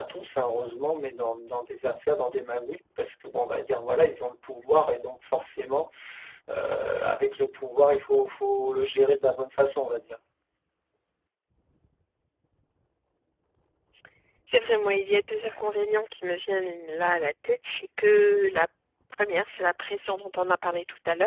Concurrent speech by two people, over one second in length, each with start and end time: none

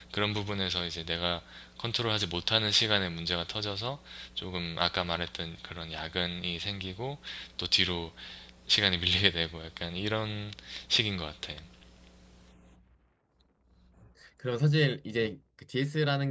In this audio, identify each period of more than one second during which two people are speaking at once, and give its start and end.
none

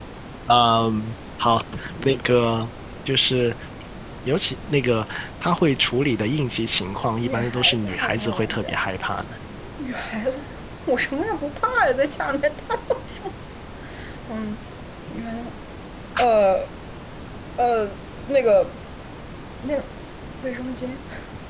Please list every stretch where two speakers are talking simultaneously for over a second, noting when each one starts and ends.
7.2-8.6

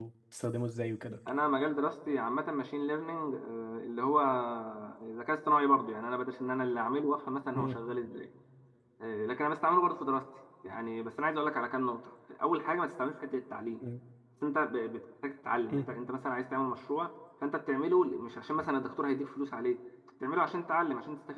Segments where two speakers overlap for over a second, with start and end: none

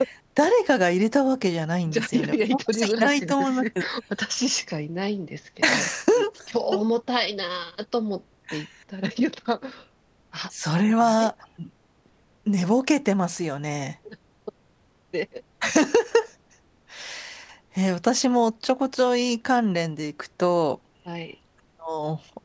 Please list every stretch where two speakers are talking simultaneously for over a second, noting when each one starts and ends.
1.9-3.8

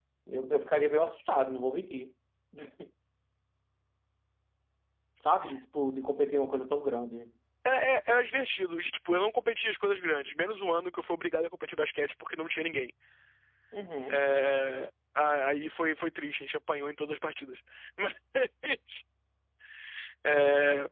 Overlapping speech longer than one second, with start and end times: none

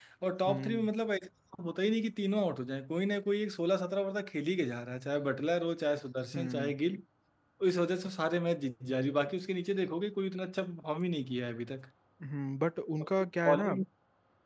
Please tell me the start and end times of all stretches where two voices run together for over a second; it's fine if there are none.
none

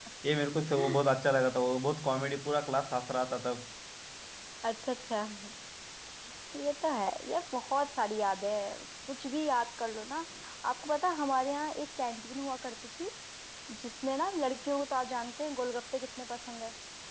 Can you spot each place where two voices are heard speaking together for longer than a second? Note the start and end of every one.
none

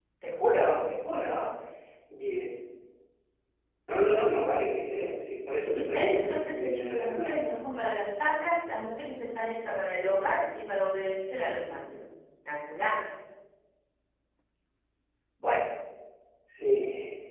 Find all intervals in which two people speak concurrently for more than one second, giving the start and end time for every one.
5.7-7.4

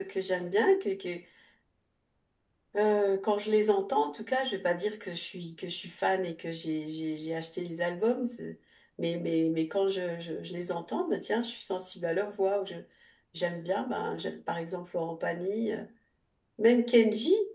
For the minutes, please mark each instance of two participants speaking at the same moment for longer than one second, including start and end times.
none

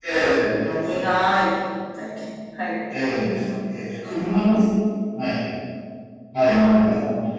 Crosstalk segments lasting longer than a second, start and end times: none

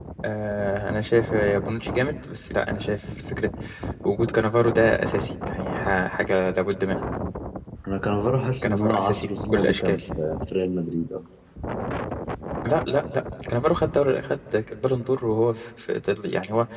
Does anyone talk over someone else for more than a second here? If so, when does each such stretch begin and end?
8.6-10.0

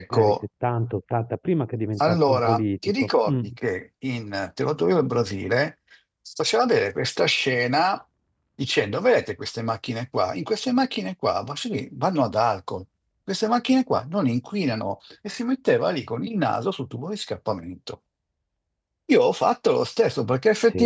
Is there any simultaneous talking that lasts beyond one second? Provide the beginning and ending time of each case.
2.0-3.3

